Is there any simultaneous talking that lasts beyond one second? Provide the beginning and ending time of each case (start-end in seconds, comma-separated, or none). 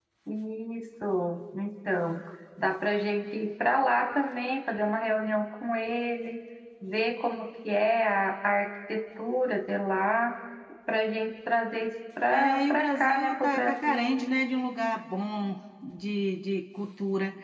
12.3-14.2